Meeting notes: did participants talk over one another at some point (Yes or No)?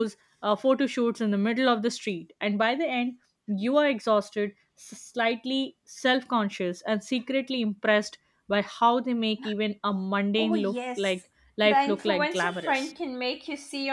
Yes